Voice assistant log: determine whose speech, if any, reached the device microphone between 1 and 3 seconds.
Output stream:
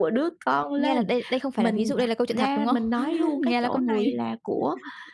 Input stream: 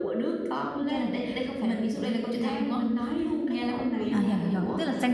echo only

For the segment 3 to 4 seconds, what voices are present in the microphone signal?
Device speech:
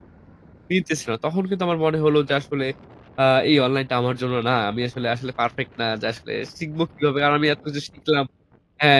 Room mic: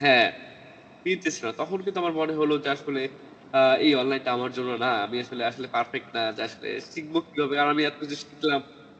echo only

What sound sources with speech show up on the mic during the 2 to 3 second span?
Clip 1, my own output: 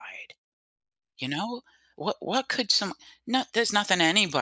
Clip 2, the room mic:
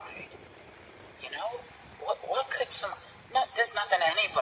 echo only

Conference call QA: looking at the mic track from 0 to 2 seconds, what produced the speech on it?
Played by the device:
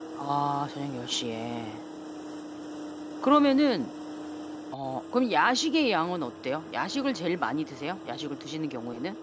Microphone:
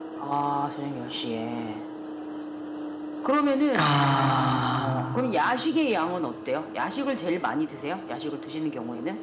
echo only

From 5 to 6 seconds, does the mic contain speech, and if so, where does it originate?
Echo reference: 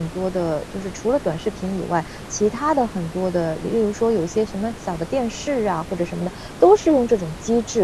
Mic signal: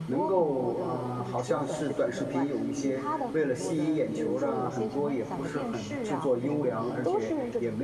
both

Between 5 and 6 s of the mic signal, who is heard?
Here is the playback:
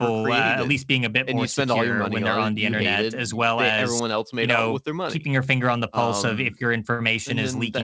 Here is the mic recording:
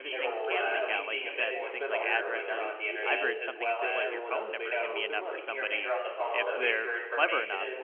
both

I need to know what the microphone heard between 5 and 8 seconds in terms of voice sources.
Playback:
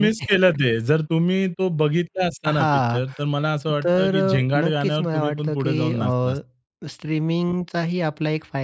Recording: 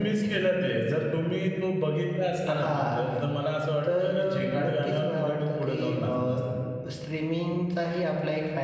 echo only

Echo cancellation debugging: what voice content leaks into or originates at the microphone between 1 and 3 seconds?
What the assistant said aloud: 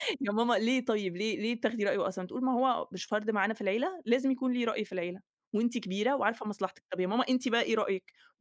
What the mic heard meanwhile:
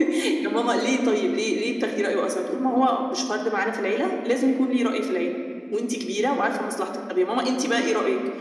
echo only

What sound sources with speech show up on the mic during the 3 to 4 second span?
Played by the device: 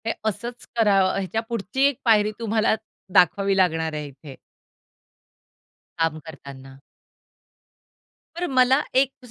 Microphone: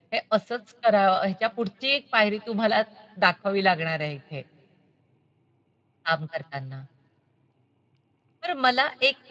echo only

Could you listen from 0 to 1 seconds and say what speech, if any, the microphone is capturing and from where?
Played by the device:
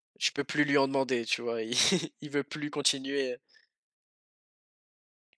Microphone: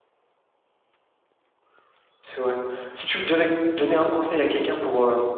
neither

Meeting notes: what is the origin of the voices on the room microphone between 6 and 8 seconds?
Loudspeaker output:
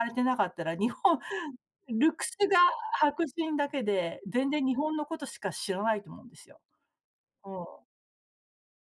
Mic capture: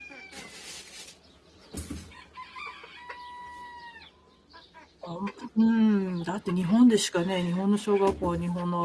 user only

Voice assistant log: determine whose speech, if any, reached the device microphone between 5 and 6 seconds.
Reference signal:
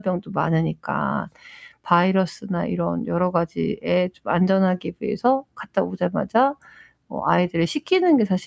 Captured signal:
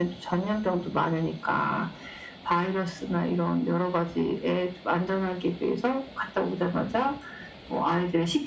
echo only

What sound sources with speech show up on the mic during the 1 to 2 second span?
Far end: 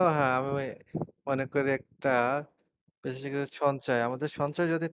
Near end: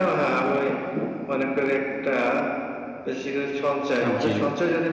echo only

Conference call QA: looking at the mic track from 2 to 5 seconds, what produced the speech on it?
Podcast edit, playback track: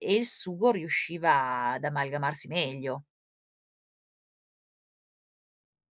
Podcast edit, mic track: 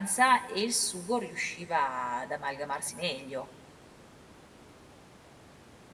echo only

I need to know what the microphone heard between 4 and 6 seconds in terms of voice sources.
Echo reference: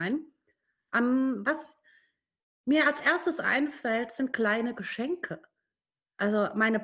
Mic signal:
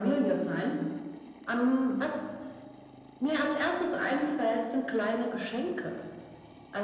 echo only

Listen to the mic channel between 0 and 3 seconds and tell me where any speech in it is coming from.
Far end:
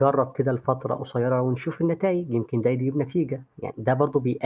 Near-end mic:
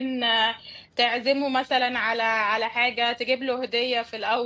user only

